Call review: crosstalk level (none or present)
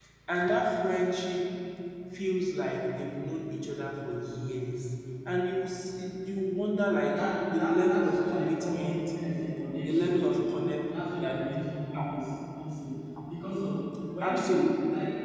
present